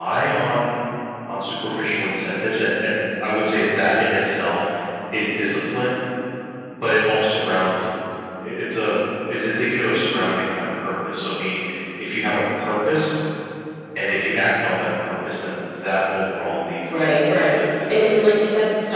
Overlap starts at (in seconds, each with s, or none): 16.9 s